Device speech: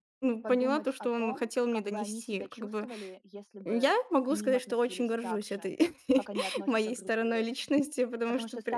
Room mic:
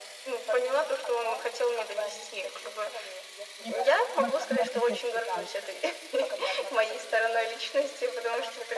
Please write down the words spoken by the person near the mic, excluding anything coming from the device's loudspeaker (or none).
Мне кажется, ты большая молодец, что ты